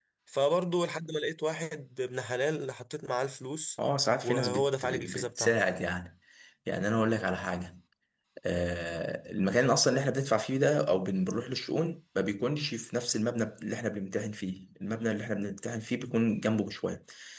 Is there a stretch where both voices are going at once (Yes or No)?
Yes